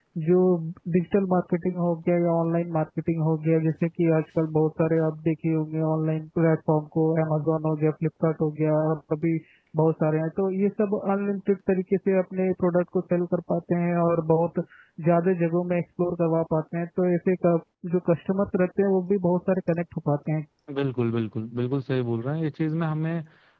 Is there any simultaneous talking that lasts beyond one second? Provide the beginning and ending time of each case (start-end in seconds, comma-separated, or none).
none